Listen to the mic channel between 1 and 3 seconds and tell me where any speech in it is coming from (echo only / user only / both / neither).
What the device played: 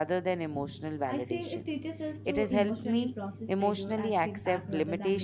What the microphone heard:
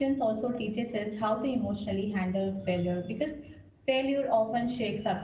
user only